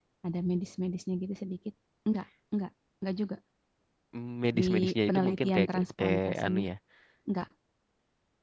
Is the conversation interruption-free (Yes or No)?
No